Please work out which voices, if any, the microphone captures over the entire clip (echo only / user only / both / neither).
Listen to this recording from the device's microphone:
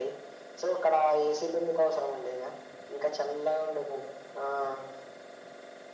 echo only